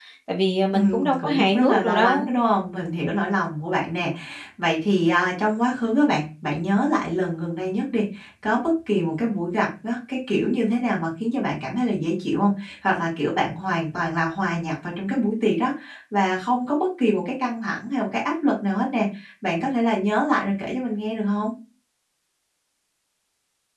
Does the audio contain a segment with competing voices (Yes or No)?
Yes